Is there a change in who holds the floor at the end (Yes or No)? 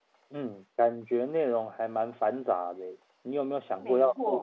No